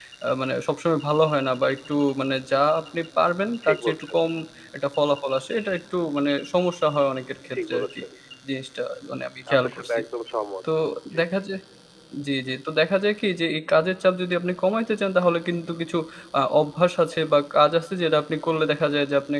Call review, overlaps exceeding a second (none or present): none